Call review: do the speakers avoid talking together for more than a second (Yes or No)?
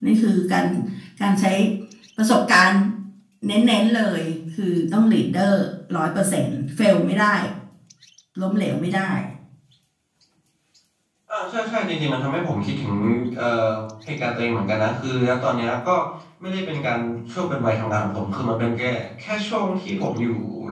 Yes